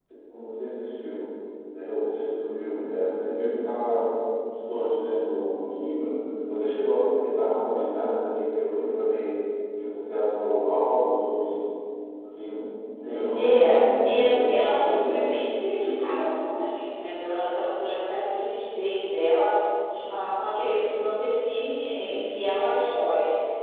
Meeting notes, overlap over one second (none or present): present